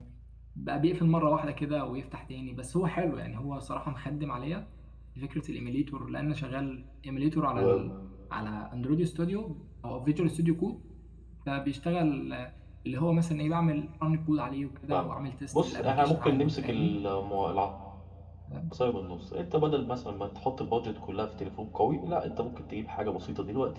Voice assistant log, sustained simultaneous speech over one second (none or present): present